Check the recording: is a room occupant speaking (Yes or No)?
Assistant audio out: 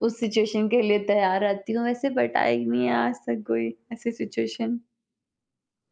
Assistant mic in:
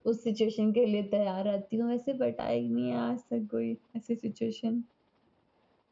No